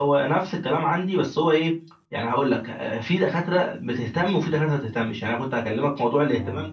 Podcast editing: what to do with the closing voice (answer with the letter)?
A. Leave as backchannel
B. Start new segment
A